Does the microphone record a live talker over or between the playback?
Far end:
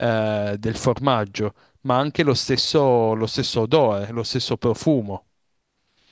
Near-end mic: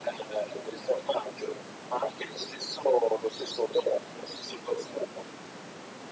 No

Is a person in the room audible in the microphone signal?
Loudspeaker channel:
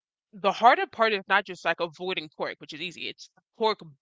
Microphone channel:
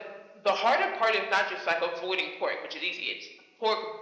No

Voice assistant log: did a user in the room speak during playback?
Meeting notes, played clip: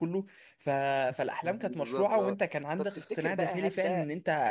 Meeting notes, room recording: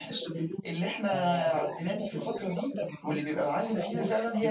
Yes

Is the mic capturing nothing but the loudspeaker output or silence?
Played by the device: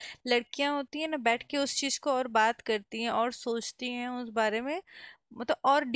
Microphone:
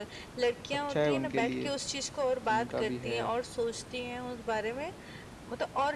No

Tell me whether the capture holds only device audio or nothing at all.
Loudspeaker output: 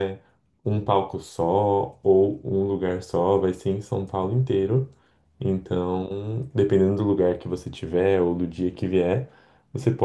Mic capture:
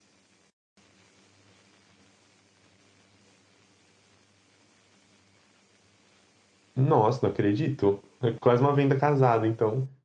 No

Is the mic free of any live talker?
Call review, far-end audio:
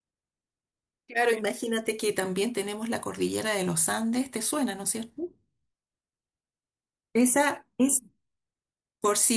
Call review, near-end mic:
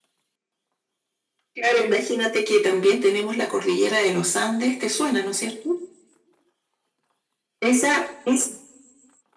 Yes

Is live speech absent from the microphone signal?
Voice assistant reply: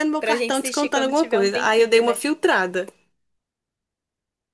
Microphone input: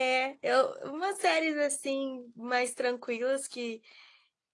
No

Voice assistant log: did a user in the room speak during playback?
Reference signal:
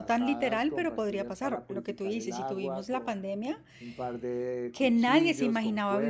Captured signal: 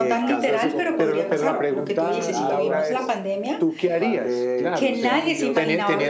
Yes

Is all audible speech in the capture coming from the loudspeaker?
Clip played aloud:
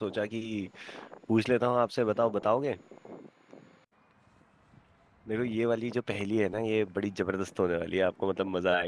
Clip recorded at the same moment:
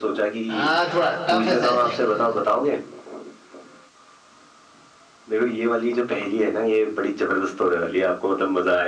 No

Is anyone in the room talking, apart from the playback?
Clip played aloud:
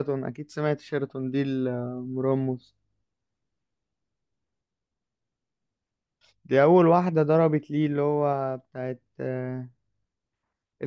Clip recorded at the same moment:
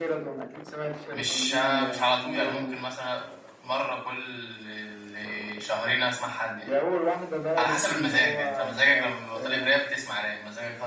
Yes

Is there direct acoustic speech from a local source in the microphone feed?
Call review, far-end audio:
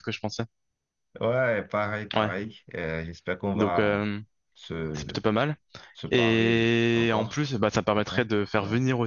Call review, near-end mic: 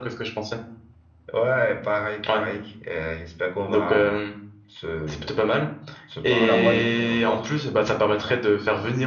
Yes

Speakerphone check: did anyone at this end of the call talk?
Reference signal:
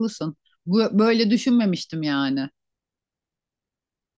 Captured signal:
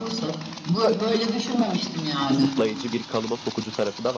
Yes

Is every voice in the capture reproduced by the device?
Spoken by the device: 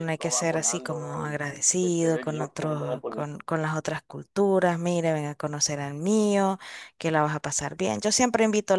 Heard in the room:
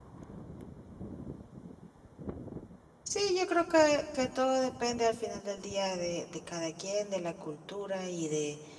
No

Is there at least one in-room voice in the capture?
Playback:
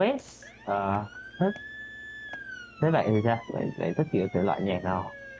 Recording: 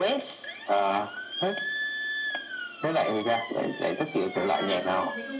Yes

